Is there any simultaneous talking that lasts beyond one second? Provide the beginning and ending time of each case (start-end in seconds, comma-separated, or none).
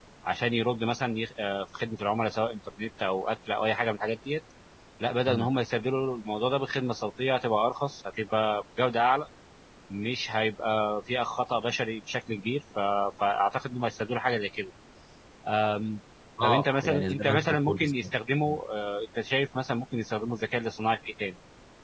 16.4-18.1